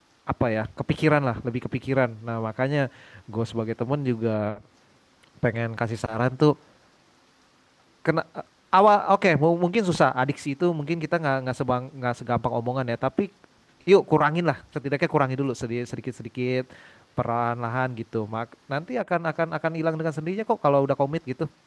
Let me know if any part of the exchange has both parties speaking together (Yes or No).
No